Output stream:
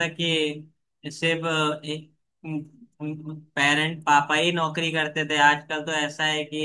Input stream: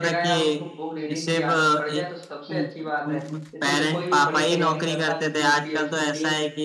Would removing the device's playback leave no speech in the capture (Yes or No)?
No